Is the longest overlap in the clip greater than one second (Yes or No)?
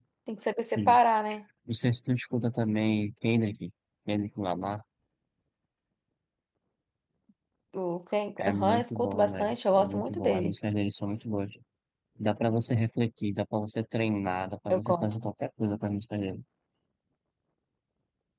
Yes